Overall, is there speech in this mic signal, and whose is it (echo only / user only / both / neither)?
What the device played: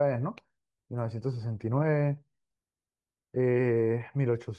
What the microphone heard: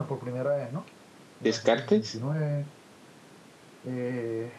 both